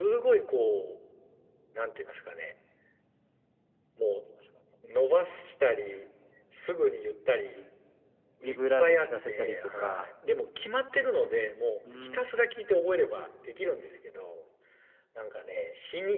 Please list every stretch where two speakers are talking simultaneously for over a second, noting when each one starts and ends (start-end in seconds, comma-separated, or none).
8.4-10.1